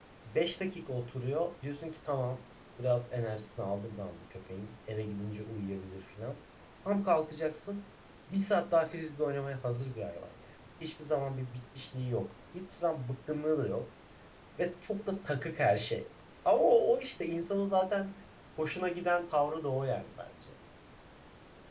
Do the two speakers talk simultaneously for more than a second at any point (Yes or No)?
No